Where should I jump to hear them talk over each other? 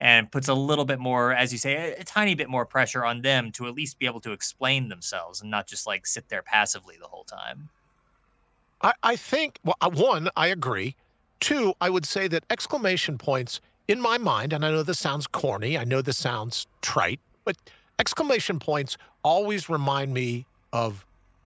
none

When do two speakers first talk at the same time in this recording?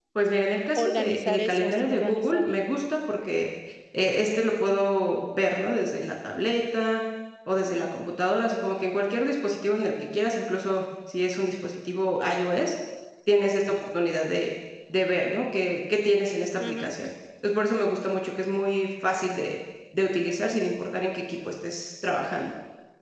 0.8 s

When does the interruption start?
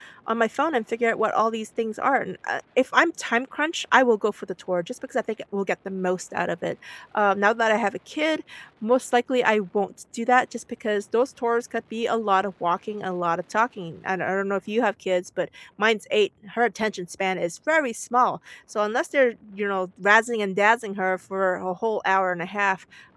none

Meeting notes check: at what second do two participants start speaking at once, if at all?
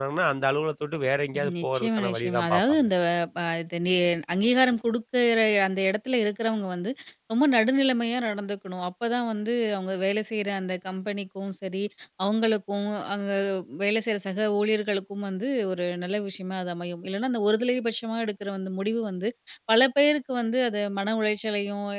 1.6 s

